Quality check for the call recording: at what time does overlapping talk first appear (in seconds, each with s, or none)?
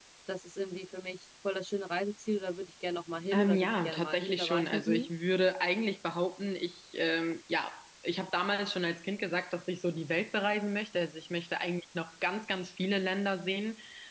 3.3 s